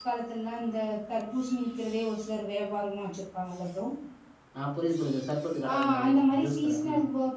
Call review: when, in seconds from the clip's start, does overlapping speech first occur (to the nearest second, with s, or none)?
6 s